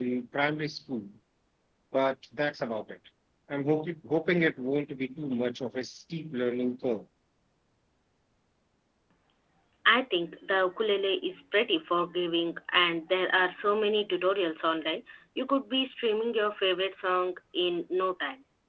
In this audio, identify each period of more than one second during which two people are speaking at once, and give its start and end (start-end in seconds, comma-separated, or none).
none